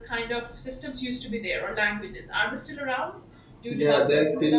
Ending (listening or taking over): taking over